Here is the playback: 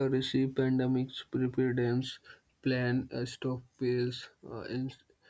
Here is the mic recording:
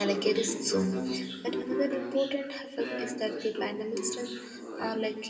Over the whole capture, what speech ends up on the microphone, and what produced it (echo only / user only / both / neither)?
both